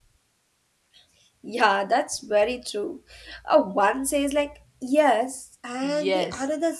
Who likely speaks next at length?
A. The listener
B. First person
A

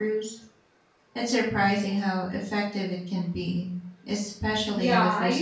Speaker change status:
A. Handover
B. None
A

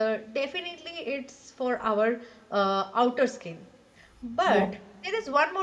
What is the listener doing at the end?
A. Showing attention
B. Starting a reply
A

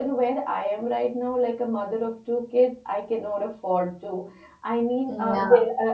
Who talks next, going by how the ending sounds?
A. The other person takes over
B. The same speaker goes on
B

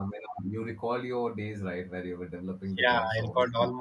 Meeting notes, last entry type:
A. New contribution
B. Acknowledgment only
A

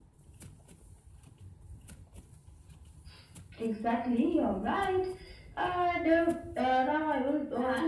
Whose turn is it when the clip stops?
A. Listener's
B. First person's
A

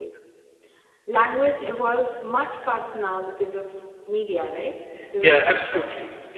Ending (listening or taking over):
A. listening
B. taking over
B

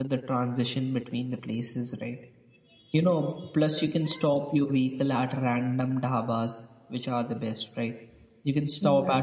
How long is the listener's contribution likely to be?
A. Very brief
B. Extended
A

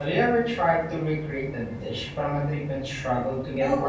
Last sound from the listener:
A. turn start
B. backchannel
A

